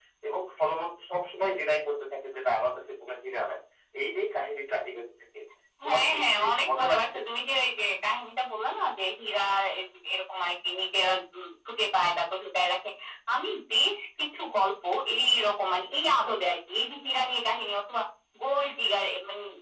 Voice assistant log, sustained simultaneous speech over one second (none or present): present